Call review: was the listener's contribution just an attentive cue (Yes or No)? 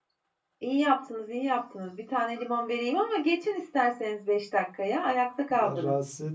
No